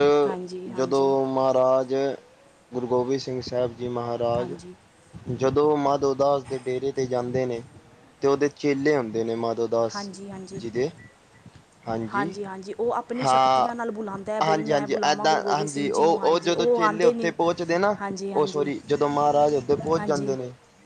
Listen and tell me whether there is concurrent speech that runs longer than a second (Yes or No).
Yes